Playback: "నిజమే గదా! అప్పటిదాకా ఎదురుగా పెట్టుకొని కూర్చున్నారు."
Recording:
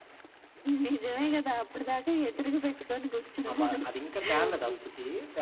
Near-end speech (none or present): present